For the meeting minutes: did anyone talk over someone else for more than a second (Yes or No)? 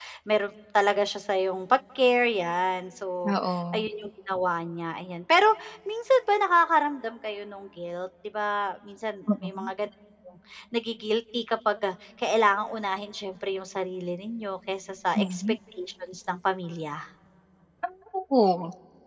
No